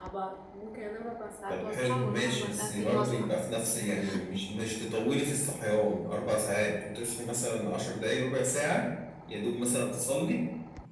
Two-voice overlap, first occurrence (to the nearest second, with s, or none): 1 s